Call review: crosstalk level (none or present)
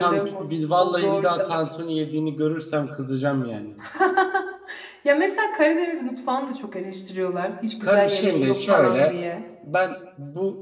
present